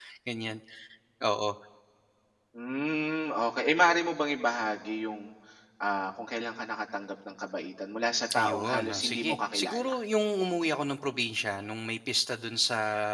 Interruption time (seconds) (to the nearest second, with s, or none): 8 s